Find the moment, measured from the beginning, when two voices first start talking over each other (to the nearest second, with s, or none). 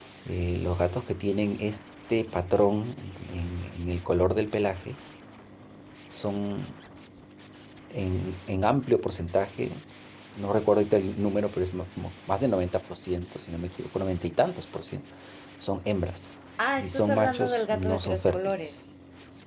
17 s